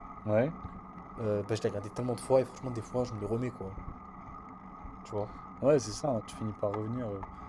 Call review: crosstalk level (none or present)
none